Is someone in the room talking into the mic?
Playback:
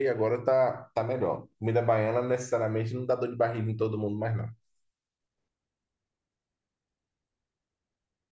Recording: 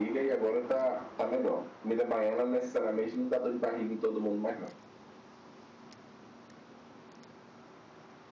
No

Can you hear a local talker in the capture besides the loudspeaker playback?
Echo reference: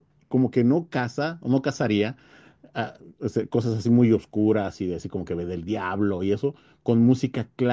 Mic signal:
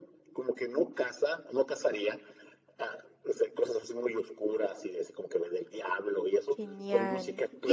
Yes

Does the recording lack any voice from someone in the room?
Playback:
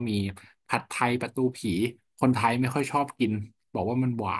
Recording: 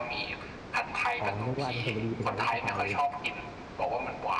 No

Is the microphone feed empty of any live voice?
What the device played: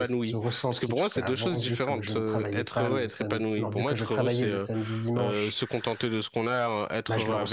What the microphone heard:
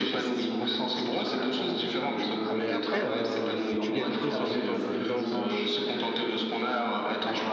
No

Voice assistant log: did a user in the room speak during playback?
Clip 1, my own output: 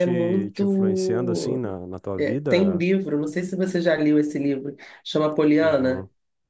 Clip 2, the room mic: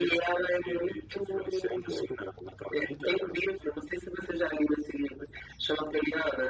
No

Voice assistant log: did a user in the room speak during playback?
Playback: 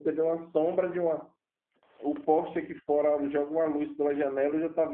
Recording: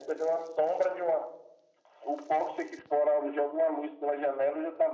No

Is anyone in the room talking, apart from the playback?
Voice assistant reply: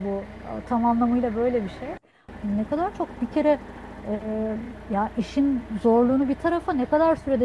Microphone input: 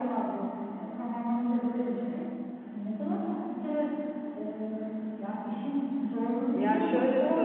Yes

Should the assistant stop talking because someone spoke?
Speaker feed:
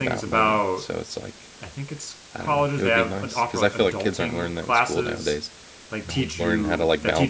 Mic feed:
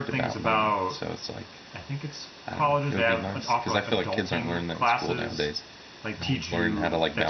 No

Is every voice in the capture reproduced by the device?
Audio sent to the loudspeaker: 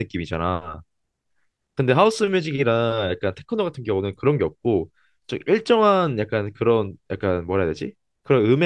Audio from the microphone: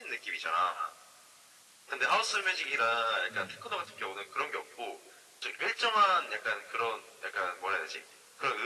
No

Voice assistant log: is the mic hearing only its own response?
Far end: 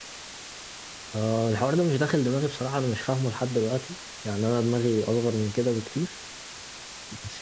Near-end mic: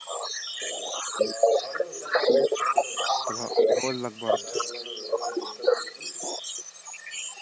No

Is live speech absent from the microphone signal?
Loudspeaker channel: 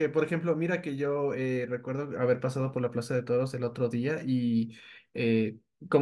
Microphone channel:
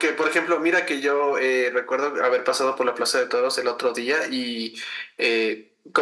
Yes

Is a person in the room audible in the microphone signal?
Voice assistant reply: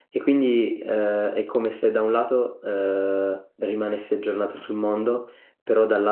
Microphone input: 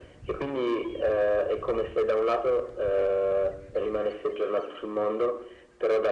No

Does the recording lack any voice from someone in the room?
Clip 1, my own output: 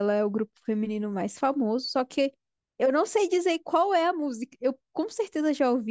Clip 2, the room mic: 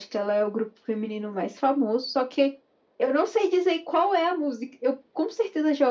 Yes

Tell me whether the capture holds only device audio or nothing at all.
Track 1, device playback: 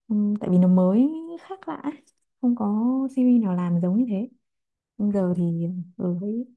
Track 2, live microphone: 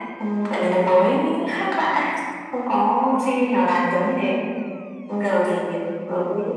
Yes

